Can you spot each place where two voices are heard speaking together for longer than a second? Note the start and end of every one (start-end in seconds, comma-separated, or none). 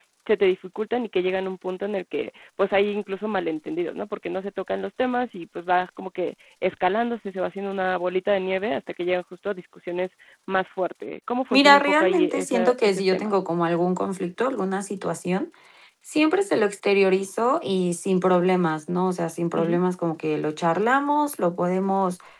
11.5-13.4